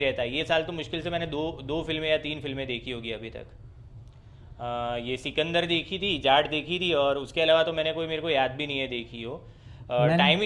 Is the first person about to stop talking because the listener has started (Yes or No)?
No